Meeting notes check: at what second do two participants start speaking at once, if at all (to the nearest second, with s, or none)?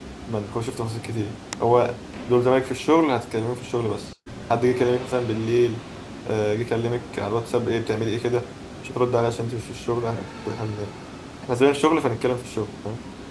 none